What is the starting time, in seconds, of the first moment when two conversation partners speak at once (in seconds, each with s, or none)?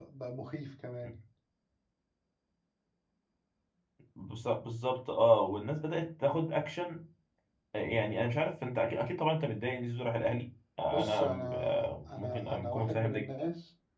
10.9 s